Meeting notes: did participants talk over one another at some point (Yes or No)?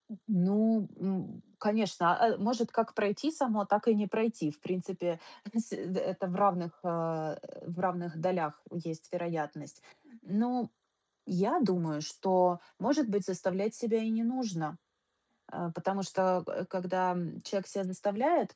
No